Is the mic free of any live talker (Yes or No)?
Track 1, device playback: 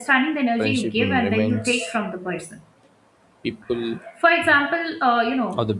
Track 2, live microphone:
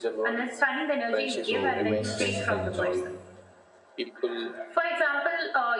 No